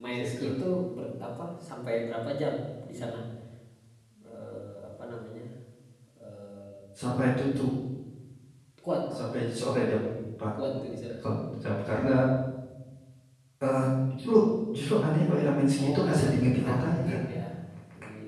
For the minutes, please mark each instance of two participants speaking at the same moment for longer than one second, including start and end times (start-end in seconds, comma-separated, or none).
15.8-17.2